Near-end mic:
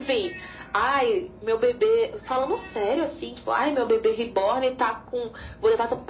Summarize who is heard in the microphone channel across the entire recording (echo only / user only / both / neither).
echo only